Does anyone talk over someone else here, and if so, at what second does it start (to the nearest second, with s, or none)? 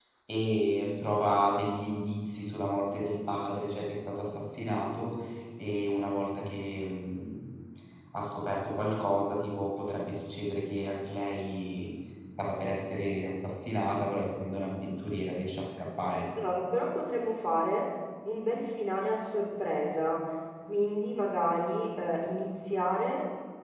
none